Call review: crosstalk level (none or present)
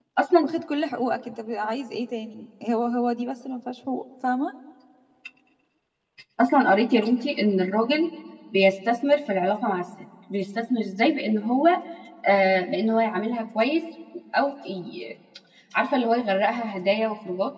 none